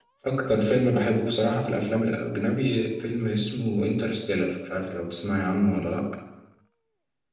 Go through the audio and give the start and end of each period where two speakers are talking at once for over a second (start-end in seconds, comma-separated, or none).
none